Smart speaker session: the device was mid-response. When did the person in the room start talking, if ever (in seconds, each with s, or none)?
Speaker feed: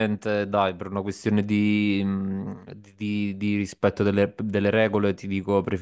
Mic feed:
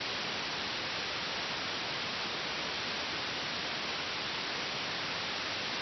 none